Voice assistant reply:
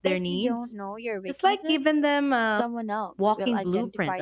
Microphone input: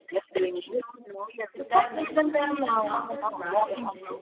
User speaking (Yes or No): Yes